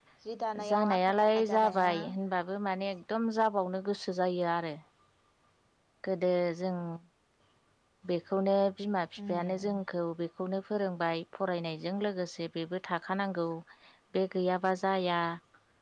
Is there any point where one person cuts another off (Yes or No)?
Yes